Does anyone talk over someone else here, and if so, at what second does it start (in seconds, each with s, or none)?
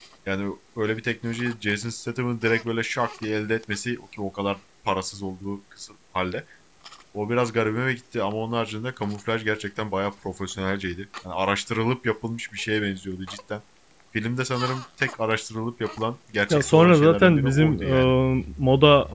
16.5 s